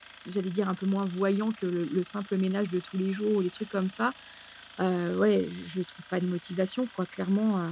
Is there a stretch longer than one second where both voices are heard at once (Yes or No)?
No